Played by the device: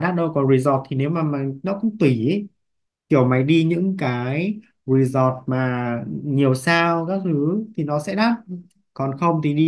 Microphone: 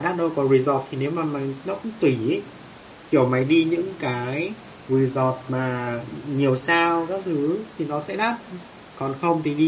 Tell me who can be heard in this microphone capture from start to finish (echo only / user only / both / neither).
echo only